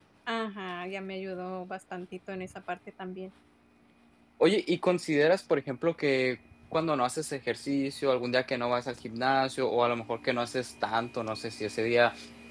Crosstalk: none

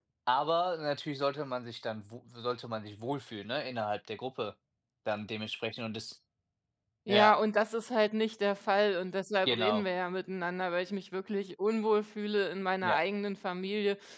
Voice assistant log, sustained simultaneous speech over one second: none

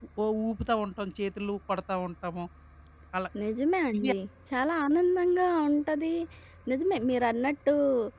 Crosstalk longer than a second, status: none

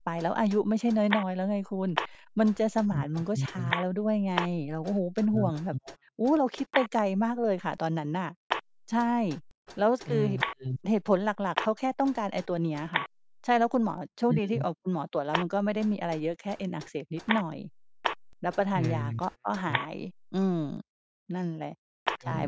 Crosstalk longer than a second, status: none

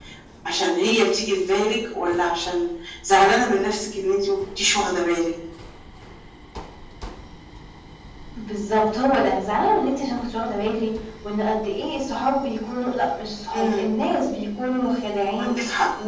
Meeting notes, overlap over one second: none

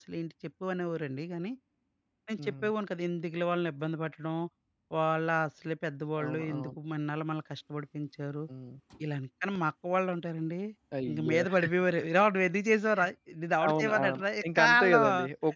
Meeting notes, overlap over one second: present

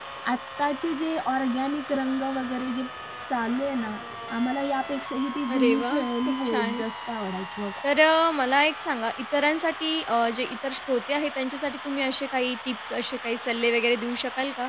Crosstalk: present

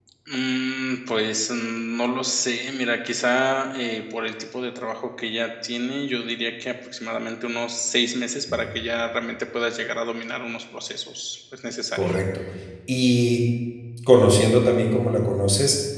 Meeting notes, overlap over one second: none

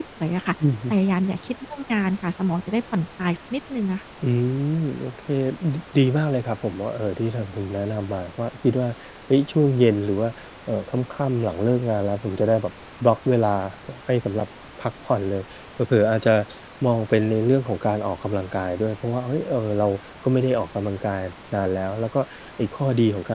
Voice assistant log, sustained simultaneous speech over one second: none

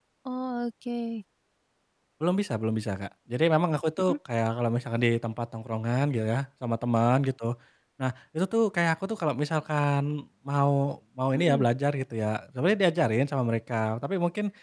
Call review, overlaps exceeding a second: none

